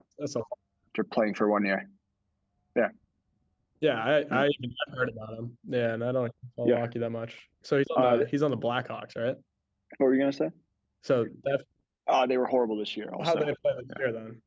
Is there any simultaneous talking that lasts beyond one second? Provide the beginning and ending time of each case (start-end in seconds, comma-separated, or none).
none